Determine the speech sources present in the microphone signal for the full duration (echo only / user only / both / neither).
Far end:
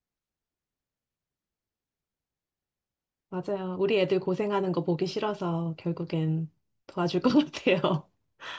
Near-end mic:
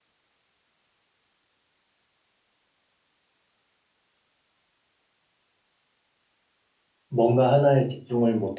user only